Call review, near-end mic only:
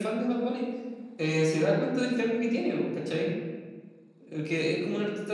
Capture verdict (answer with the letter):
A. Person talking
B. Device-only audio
B